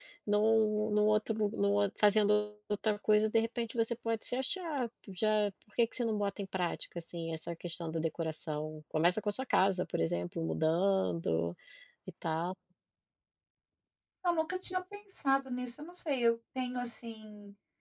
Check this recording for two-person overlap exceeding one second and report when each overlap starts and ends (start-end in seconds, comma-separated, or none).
none